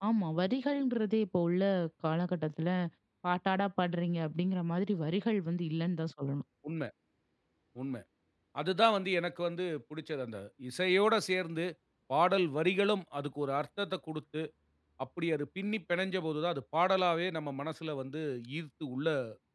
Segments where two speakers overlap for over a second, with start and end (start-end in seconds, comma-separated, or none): none